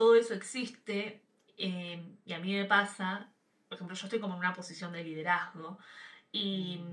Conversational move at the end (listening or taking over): listening